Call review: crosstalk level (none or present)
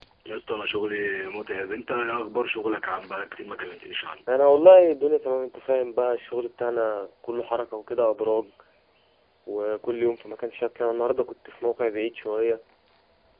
none